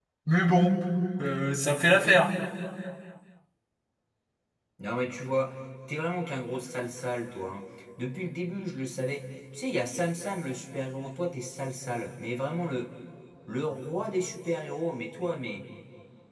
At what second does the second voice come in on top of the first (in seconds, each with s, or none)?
none